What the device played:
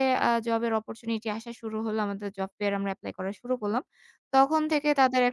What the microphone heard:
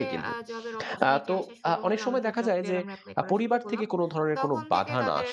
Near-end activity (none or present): present